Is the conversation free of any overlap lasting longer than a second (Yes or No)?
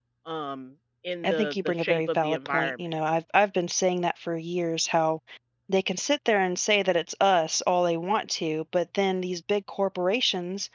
No